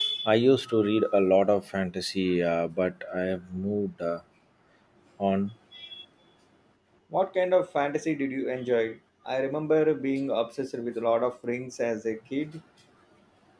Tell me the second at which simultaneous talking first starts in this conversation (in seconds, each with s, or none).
none